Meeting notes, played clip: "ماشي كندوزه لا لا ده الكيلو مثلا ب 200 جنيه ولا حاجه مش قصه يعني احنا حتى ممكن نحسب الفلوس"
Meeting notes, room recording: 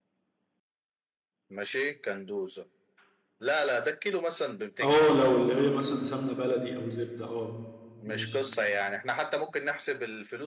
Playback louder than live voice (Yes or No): No